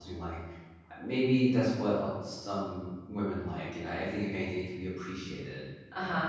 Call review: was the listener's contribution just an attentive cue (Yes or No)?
No